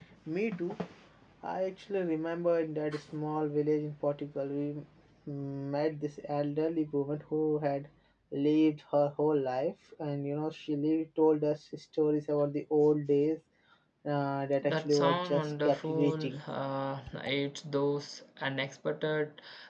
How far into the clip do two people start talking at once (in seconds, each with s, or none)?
14.6 s